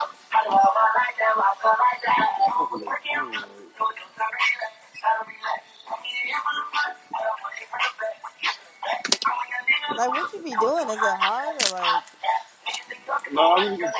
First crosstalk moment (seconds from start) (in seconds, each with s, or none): 9.9 s